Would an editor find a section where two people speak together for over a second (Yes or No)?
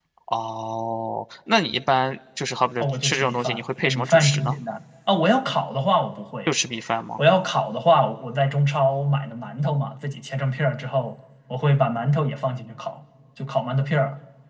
Yes